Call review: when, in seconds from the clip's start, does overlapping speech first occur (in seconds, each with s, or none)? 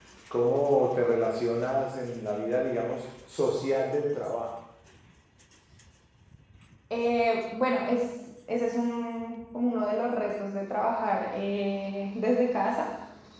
none